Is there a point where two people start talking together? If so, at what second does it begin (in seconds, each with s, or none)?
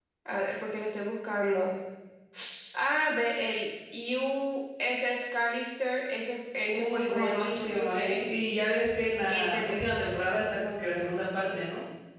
6.7 s